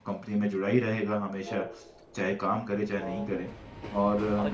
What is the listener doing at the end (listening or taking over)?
taking over